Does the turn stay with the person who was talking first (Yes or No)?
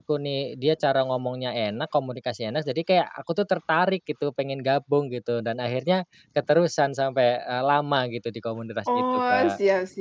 No